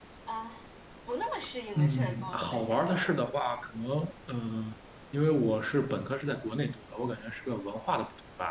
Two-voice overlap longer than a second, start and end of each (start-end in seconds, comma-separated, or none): 1.8-3.1